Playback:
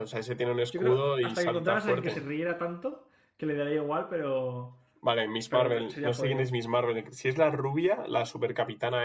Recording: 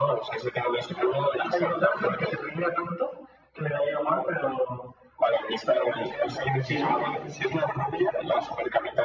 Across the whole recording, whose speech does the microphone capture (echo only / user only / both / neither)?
both